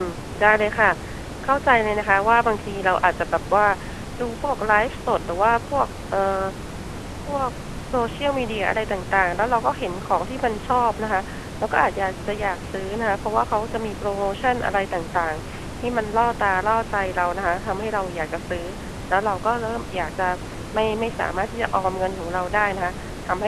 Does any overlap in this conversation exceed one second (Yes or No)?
No